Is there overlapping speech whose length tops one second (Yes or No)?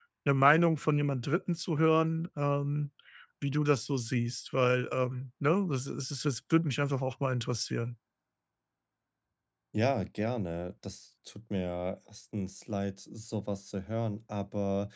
No